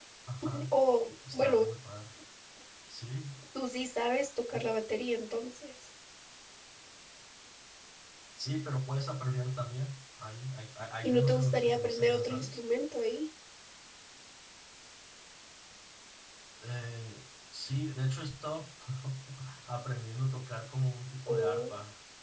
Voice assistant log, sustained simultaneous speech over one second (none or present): present